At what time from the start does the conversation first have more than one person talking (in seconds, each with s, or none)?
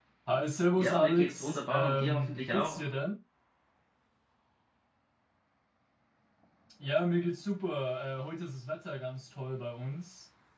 0.7 s